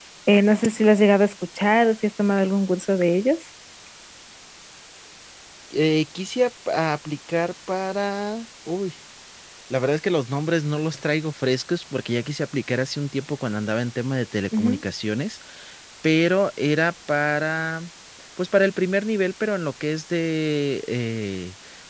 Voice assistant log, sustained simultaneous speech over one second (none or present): none